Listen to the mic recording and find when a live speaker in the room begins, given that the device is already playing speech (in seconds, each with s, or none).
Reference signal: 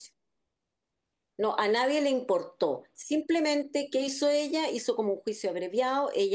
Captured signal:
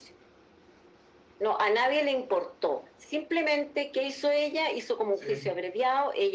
5.1 s